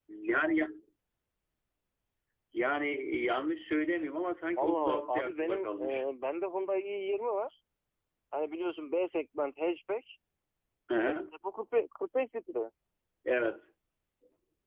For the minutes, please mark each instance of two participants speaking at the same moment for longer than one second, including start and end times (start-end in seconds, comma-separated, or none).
4.6-5.9